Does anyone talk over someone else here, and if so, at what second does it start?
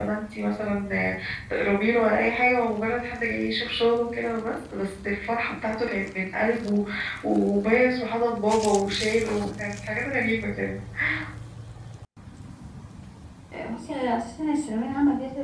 none

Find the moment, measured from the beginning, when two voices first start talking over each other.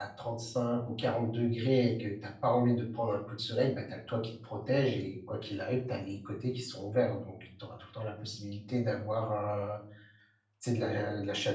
none

